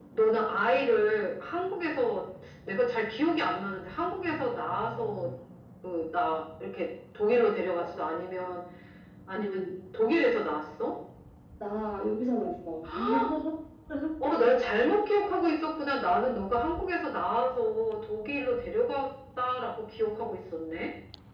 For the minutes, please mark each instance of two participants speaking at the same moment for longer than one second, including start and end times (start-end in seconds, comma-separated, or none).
none